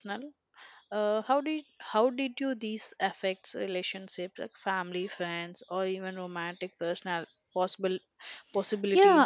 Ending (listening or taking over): taking over